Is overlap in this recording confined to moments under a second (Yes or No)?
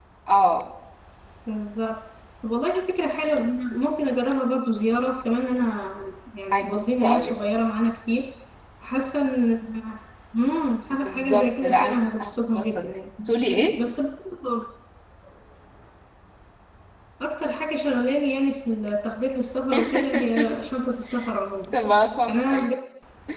No